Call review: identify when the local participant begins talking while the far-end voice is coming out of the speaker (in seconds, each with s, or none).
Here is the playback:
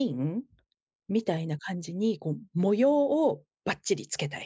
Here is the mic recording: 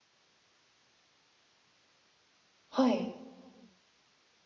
2.7 s